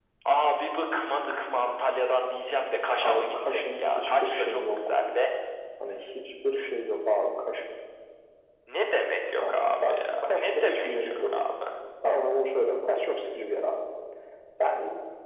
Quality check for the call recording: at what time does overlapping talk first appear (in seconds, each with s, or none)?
3.0 s